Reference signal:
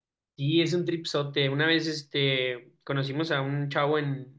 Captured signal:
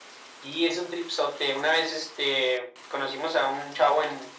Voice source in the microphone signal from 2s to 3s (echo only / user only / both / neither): echo only